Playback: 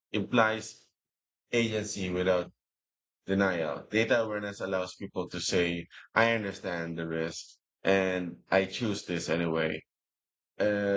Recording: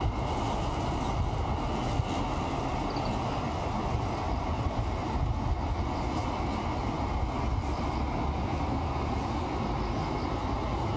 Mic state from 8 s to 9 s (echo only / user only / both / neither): neither